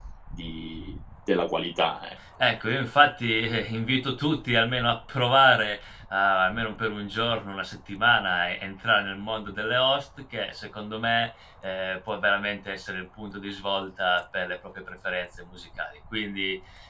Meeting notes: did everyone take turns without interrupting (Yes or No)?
Yes